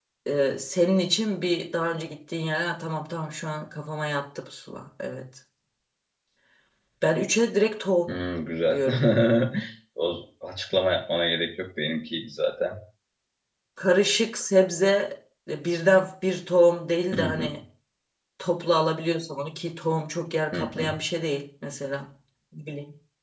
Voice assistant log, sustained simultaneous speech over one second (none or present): none